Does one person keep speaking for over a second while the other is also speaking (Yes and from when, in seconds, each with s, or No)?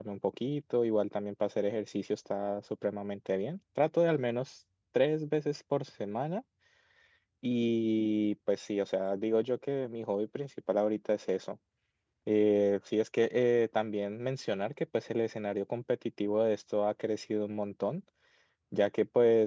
No